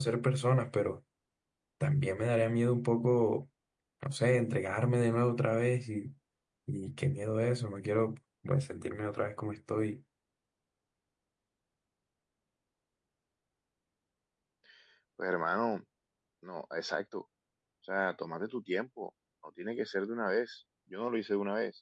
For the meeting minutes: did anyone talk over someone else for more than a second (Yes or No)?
No